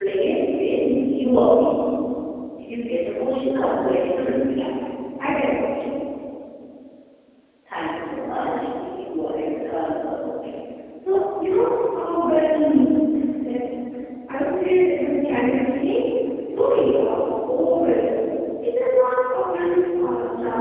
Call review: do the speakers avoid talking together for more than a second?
Yes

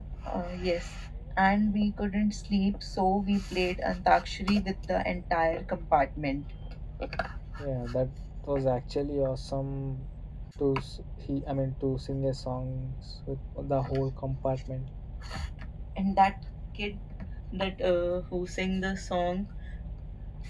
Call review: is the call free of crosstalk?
Yes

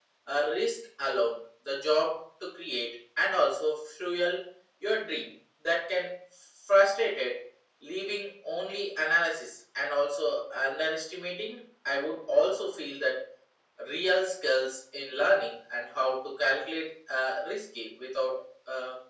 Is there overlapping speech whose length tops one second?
No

